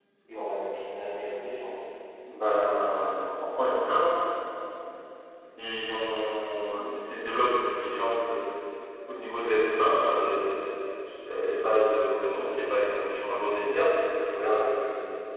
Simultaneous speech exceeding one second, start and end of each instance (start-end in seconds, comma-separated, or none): none